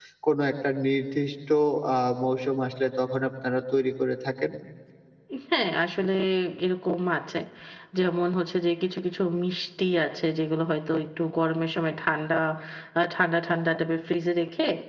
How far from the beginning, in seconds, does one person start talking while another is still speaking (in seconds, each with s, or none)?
none